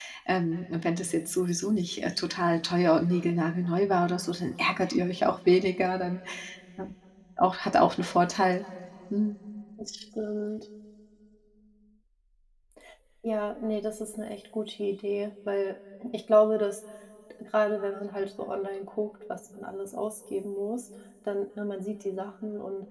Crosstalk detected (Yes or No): No